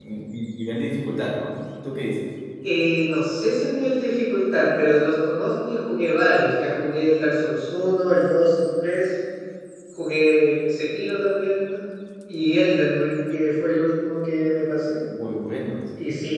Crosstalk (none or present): none